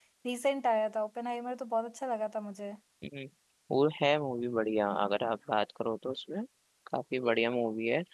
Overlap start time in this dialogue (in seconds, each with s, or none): none